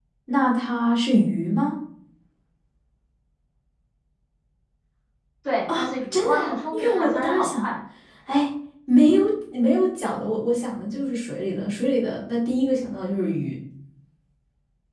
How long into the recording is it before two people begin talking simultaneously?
5.7 s

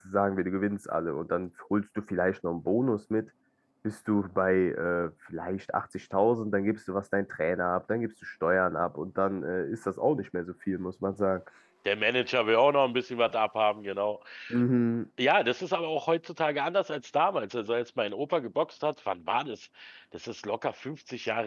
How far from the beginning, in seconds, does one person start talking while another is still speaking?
none

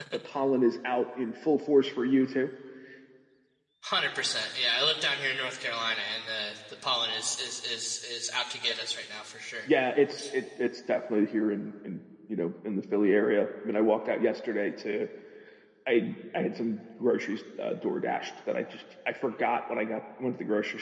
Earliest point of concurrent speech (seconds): none

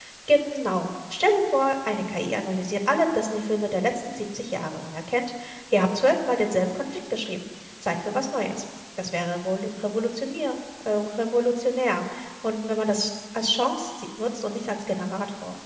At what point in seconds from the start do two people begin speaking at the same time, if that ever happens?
none

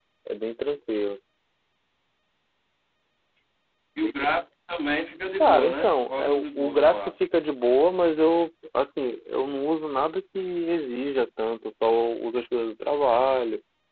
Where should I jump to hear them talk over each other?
5.4 s

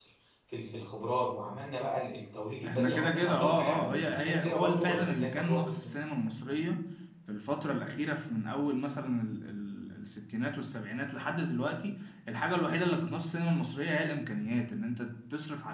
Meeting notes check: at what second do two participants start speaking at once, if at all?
2.6 s

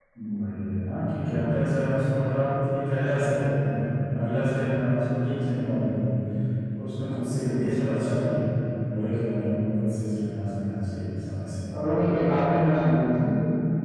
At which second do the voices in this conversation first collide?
none

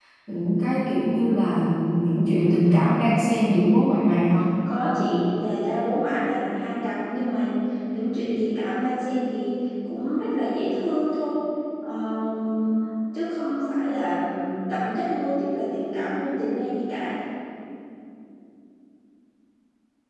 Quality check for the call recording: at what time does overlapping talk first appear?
none

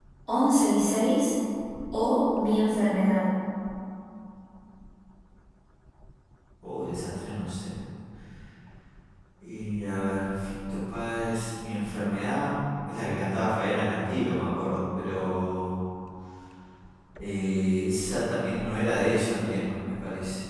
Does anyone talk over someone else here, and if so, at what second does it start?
none

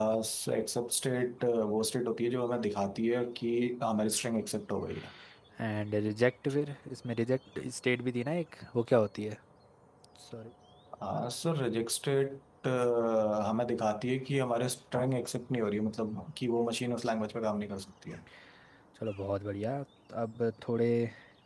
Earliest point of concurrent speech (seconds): none

